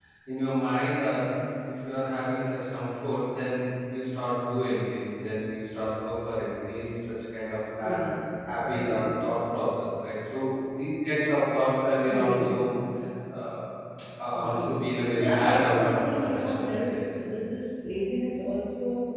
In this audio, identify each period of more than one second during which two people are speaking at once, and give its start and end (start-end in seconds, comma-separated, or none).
15.2-17.0